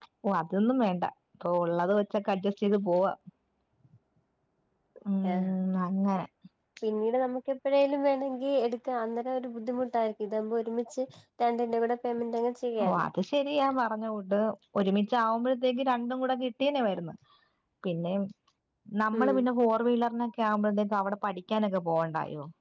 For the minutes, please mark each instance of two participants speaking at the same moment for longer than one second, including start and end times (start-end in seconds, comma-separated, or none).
none